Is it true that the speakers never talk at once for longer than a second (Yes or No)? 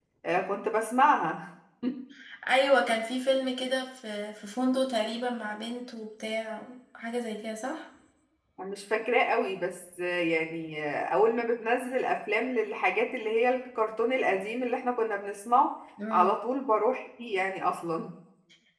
Yes